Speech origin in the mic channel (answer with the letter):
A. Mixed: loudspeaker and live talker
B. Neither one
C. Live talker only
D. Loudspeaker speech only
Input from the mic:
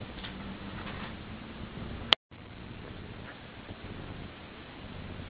B